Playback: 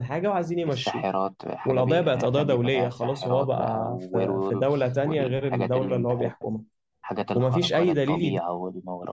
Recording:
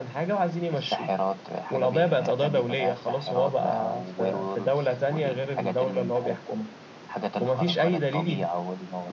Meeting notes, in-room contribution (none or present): none